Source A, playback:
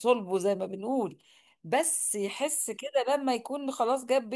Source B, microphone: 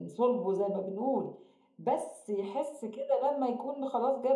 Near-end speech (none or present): none